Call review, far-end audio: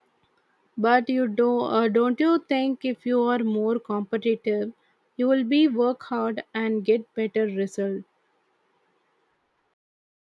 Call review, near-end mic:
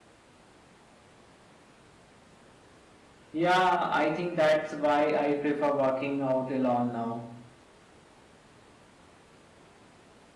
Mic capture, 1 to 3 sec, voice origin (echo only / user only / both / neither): neither